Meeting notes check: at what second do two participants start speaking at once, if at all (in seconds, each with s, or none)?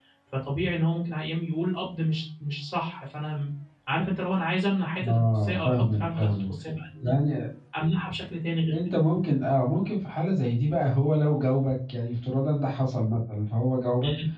5.0 s